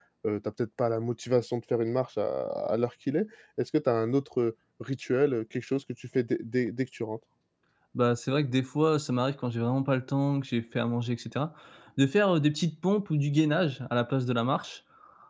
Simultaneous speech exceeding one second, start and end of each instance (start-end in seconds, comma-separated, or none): none